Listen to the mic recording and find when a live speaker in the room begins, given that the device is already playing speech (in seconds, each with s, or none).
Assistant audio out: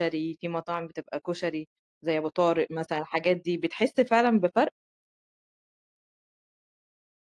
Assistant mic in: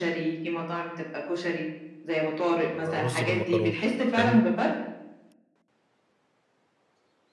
2.7 s